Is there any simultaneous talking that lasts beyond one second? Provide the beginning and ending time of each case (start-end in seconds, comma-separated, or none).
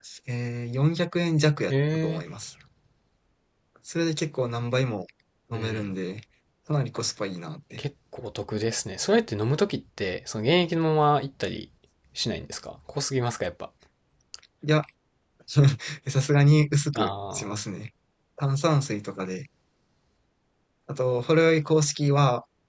none